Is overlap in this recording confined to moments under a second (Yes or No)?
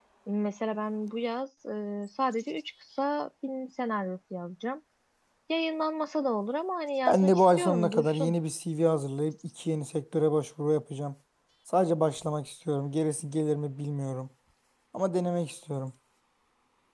No